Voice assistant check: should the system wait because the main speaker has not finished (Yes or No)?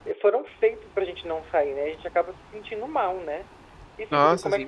Yes